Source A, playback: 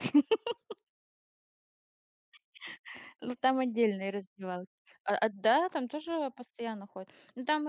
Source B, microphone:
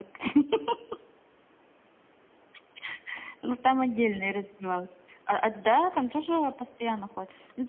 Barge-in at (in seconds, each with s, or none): none